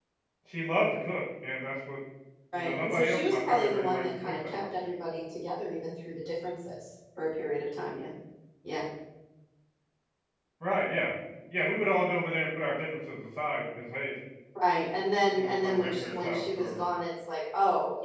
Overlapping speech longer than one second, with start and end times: 2.5-4.6, 15.3-16.8

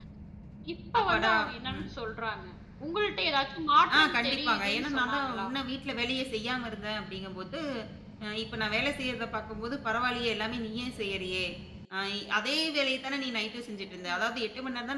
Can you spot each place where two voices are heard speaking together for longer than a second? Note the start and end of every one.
4.0-5.5

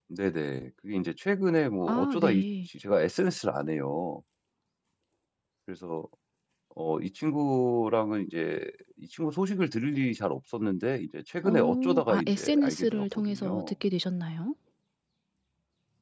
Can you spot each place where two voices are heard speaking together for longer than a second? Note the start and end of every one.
11.4-13.7

